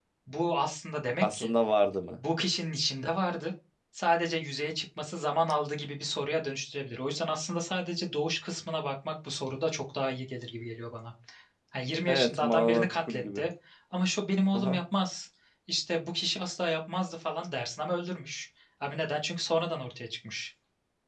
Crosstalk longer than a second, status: present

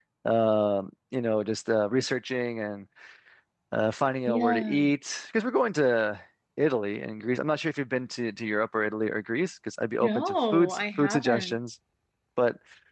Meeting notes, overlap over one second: present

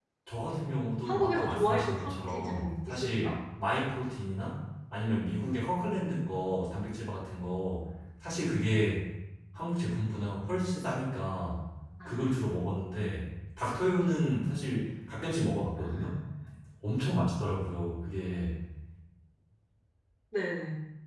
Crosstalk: present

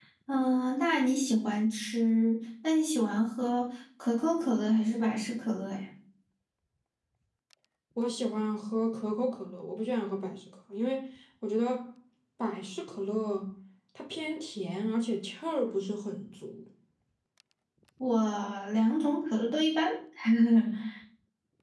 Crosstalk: none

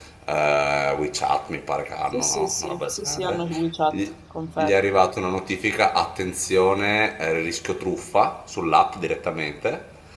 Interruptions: present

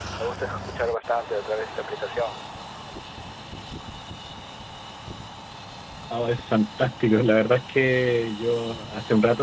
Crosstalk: none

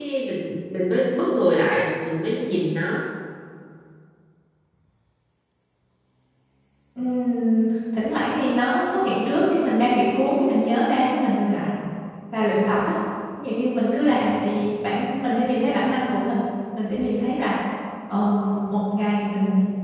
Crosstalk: none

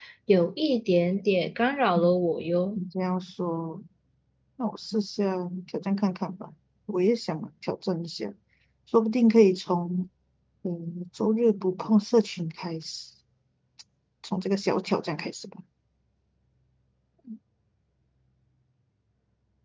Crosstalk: none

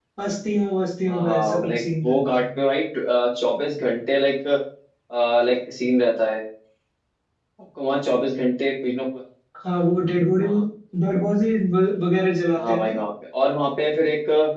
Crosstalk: present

